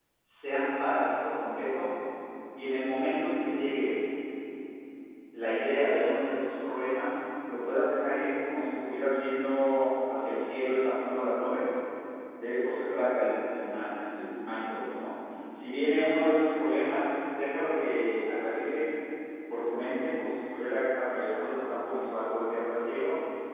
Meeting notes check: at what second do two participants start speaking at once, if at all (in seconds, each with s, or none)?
none